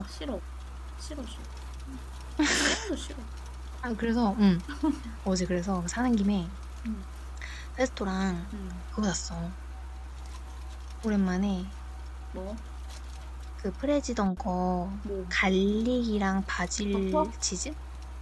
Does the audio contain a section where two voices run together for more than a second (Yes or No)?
No